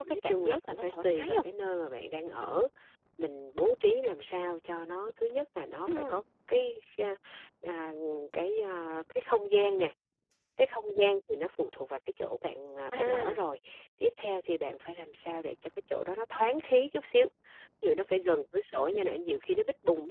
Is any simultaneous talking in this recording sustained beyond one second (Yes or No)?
Yes